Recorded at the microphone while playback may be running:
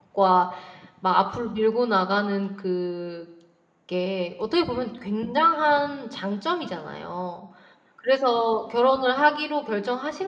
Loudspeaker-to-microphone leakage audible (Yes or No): No